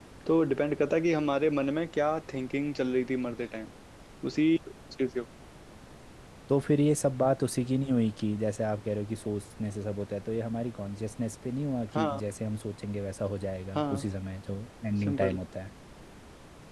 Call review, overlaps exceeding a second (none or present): none